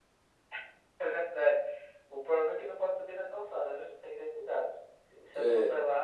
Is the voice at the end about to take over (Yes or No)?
No